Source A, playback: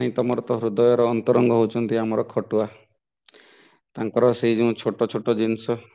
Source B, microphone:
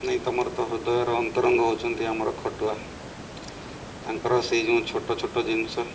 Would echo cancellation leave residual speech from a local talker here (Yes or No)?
No